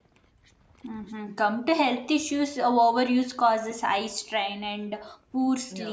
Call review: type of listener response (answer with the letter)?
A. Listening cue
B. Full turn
A